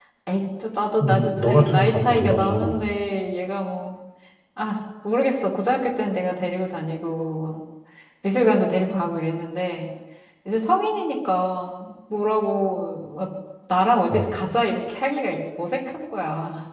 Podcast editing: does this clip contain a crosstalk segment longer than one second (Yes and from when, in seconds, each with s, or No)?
Yes, from 1.0 s